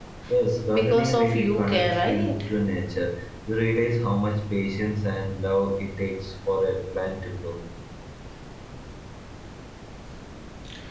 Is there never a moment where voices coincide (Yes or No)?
No